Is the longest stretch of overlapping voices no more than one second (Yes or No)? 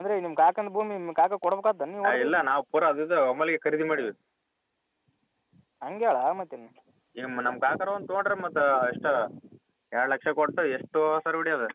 Yes